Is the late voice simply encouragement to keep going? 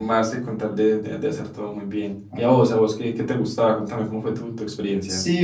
No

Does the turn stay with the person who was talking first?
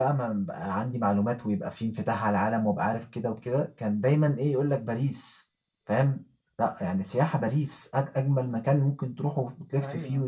No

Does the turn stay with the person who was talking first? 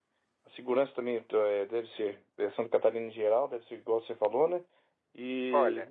Yes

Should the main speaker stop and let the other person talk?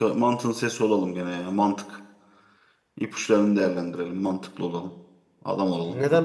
Yes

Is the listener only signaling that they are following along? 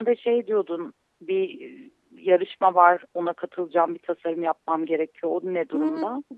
No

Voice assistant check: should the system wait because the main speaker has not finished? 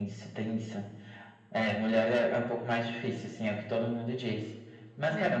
Yes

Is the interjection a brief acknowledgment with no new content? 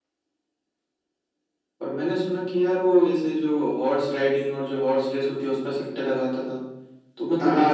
Yes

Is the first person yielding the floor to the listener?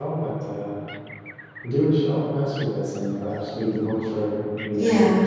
Yes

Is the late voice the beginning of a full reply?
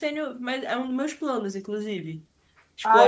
Yes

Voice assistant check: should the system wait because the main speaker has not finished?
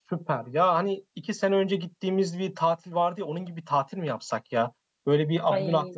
Yes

